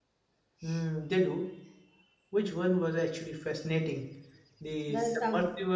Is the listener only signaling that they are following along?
Yes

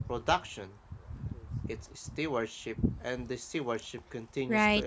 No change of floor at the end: No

